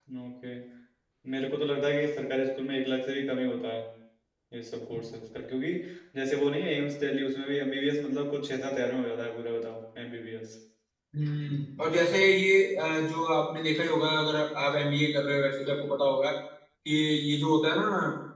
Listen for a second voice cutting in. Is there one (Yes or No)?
No